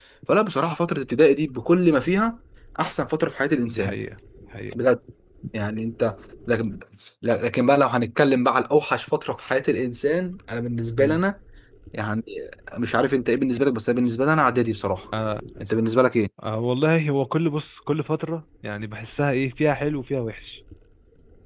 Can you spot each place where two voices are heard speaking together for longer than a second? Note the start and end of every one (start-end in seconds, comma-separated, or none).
none